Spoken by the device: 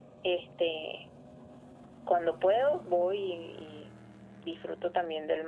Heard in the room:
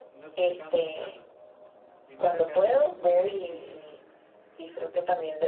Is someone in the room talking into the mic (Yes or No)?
Yes